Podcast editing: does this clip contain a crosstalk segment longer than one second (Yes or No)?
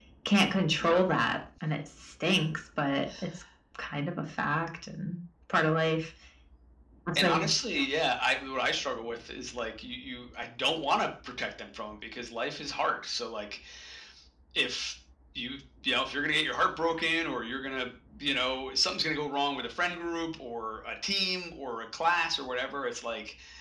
No